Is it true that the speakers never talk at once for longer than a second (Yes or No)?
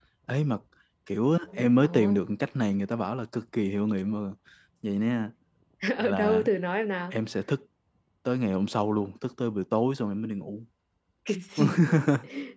Yes